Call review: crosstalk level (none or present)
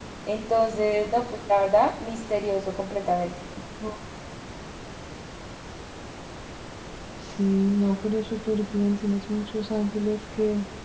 none